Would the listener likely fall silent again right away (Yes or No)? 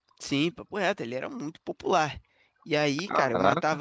Yes